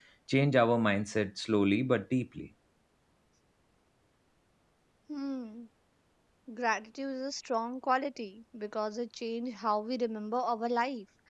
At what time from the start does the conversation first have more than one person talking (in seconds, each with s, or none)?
none